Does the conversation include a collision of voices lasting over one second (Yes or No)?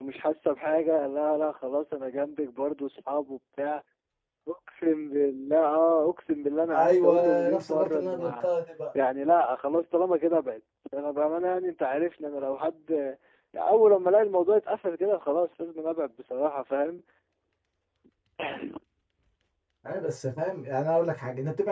Yes